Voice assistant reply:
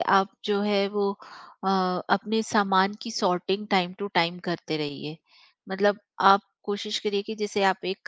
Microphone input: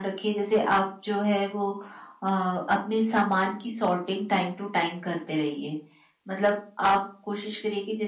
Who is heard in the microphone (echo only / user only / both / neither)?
echo only